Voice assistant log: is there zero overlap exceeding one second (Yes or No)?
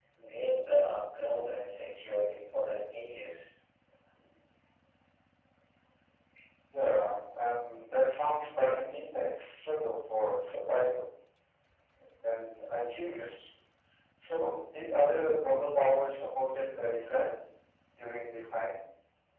Yes